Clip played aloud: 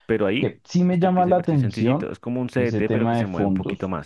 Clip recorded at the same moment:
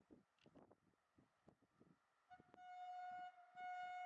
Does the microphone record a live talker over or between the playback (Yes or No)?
No